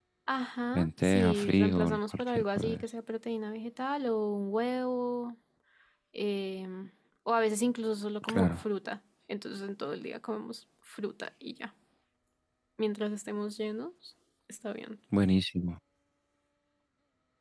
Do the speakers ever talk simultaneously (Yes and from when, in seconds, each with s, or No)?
Yes, from 0.7 s